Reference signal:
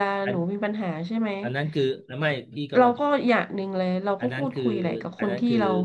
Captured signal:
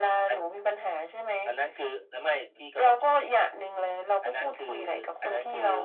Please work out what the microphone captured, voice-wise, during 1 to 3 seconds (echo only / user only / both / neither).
echo only